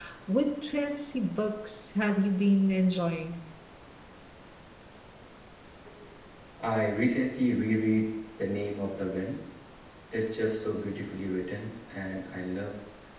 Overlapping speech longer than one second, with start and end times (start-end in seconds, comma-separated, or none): none